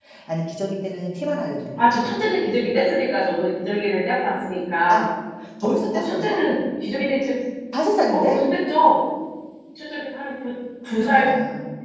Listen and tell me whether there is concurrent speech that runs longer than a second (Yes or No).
No